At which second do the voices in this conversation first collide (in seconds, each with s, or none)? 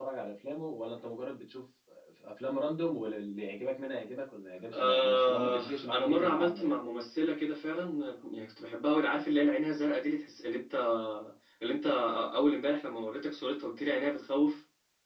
4.7 s